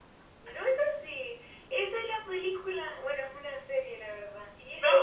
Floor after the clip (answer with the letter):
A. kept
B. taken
A